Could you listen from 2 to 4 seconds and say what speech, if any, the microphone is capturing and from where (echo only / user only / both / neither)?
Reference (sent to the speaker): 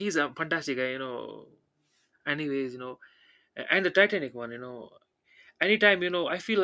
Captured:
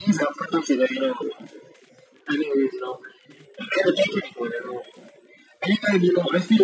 echo only